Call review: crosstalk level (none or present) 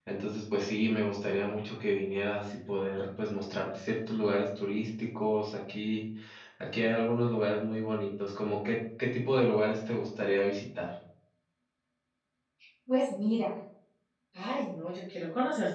none